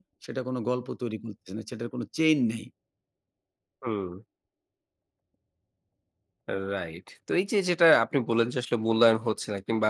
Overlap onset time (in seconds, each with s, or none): none